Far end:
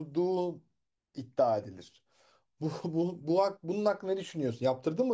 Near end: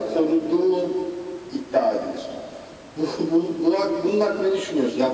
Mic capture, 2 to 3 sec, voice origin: echo only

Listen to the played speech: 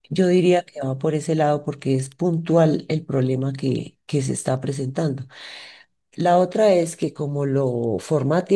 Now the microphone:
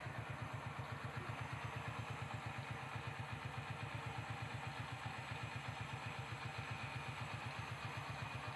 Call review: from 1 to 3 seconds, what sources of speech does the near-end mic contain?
neither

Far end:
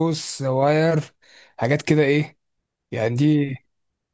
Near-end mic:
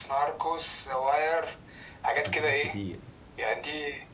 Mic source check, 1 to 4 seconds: both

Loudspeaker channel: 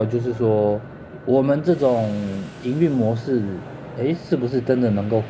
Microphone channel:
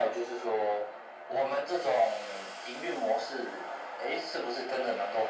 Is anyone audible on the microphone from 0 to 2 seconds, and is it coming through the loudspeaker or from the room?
echo only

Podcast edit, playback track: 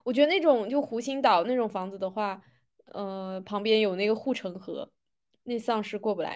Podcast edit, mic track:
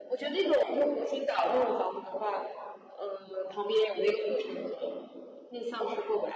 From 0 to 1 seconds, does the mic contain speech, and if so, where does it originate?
echo only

